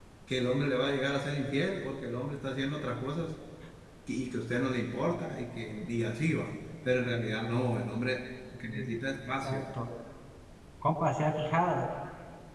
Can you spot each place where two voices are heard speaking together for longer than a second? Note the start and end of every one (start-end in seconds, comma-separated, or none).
none